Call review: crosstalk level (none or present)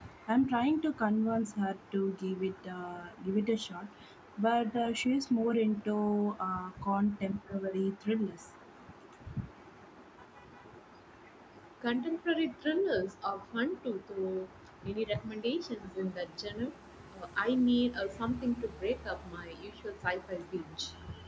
none